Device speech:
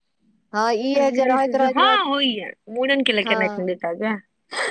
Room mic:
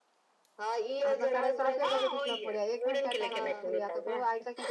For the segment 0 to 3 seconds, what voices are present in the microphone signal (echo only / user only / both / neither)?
both